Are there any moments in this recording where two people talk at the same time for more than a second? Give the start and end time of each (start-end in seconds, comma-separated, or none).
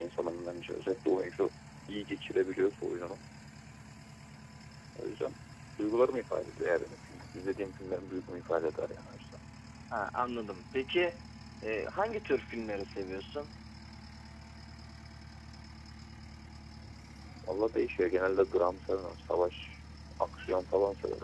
none